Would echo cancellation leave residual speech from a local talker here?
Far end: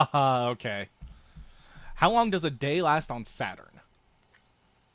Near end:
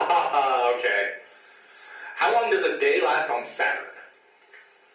No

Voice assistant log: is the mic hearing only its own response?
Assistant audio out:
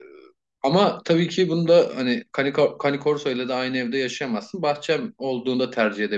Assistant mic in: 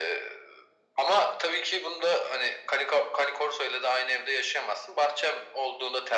Yes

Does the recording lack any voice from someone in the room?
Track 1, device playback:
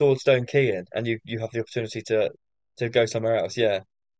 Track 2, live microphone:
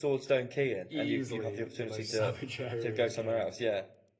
No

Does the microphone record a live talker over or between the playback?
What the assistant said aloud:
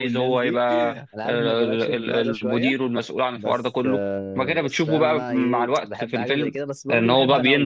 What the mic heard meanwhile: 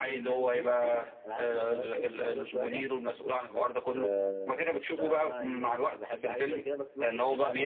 No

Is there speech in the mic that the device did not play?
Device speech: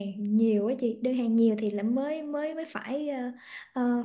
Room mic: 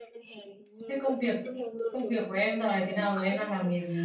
Yes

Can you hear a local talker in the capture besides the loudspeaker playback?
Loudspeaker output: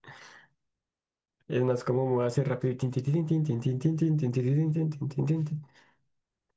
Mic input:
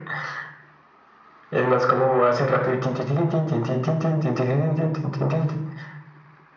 No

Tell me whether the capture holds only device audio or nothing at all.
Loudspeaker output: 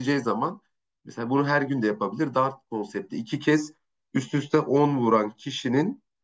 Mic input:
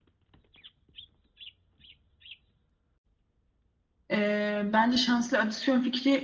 No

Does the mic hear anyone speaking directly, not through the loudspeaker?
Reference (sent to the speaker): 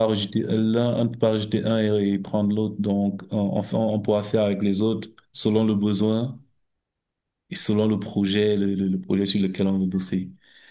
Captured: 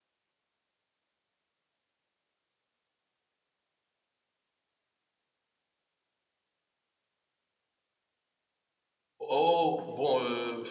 Yes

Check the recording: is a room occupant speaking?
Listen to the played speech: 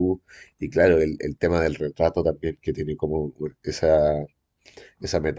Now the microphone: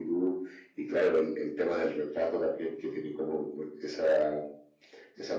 No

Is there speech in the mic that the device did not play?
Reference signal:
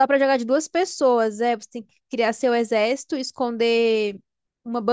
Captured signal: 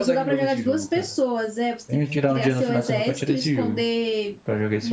Yes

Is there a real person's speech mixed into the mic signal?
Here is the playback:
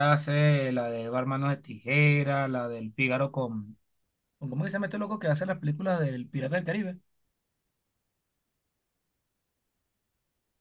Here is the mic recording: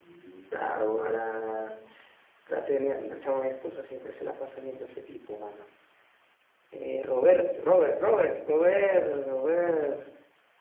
Yes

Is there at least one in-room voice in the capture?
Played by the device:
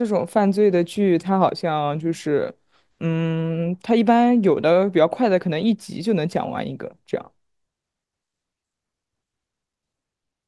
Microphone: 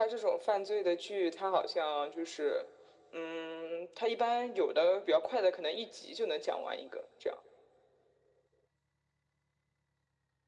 No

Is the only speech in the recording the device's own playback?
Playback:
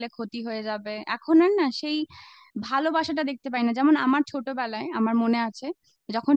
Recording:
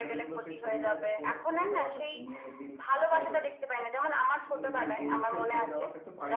No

